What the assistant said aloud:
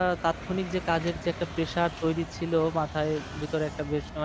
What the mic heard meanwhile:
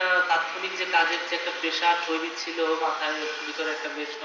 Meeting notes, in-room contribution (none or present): none